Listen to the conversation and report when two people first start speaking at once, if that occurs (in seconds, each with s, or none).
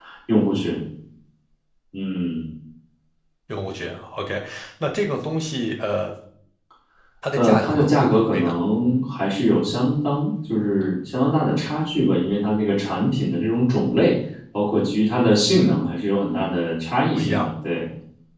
7.4 s